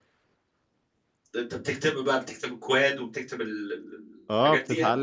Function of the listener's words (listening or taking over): taking over